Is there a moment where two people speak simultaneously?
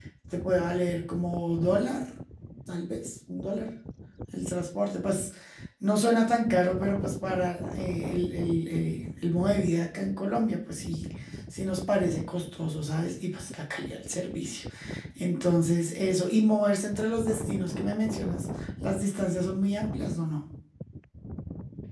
No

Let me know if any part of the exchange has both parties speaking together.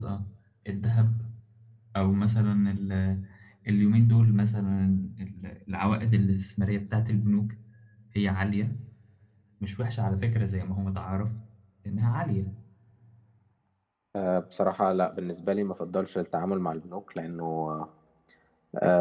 No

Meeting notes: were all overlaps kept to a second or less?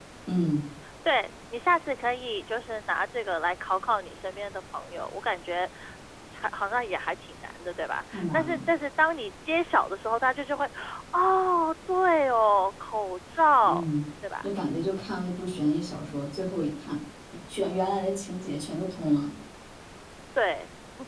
Yes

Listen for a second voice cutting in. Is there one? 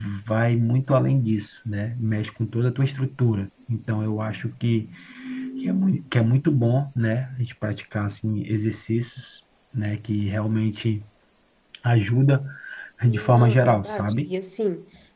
Yes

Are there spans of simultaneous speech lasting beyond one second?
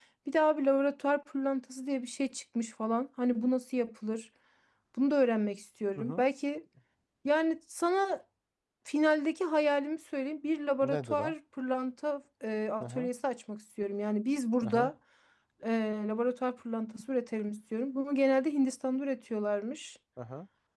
No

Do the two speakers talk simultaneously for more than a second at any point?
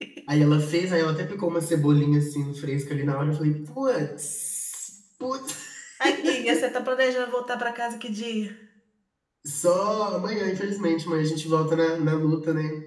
No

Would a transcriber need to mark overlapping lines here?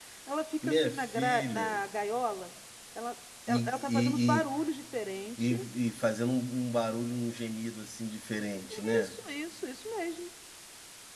Yes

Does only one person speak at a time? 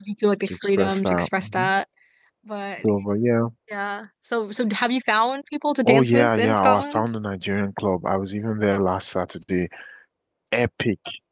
No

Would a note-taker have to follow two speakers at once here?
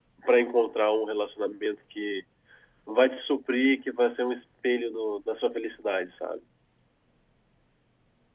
No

